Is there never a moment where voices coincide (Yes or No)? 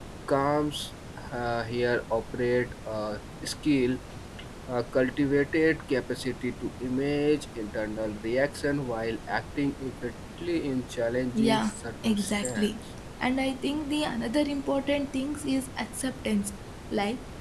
No